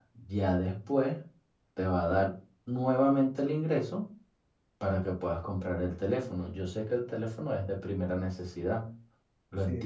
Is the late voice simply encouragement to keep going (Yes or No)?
No